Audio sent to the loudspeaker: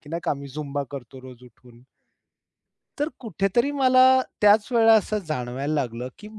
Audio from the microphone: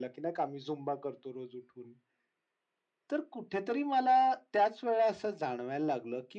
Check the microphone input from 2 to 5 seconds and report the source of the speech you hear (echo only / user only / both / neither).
echo only